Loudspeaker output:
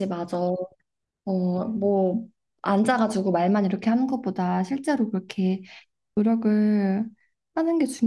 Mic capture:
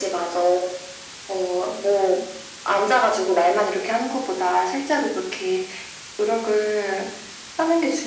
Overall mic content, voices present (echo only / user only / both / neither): echo only